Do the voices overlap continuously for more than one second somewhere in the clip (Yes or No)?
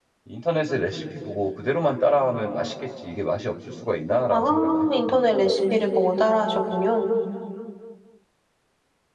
Yes